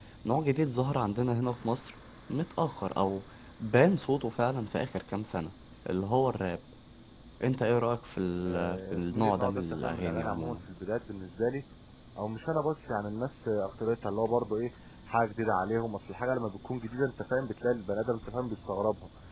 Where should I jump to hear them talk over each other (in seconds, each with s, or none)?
8.5 s